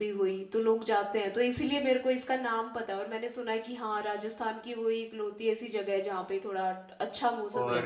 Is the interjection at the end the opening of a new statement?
Yes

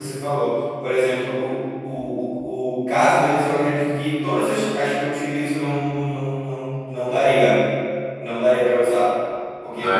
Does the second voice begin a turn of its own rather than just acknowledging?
No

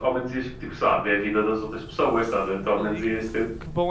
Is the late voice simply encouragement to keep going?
No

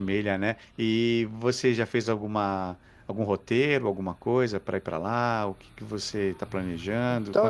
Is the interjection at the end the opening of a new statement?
Yes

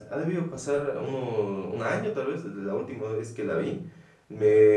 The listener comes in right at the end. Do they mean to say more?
No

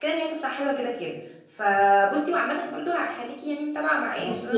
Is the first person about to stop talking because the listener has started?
Yes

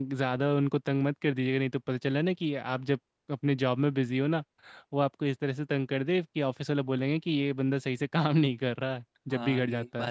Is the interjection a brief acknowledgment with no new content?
No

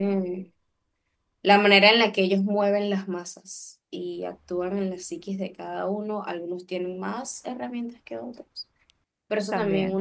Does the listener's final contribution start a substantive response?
No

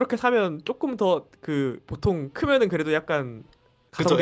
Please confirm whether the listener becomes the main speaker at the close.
Yes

